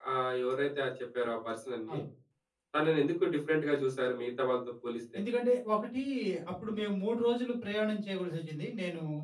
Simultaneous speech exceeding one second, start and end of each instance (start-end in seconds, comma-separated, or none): none